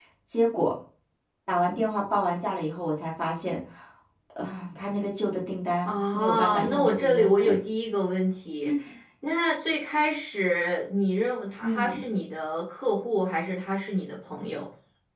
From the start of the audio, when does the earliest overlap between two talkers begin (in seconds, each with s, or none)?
5.8 s